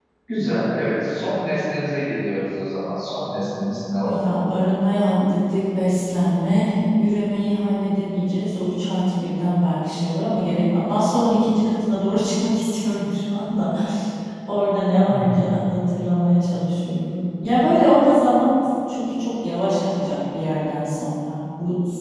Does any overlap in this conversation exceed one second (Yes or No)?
No